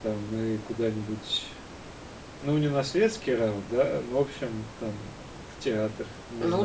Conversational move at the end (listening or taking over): taking over